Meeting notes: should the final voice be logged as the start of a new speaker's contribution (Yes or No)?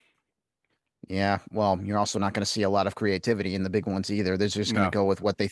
No